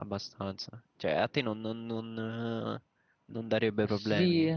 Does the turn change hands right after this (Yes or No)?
Yes